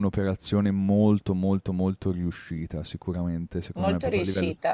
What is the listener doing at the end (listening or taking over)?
listening